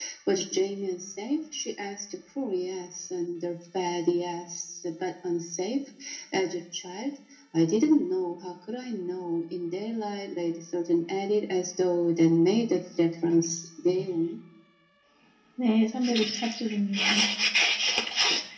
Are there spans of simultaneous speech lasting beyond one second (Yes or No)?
No